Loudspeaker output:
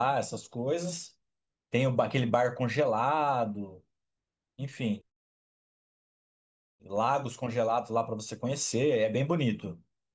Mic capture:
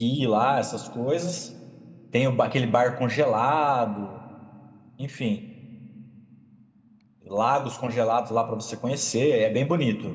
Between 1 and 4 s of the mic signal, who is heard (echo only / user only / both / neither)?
echo only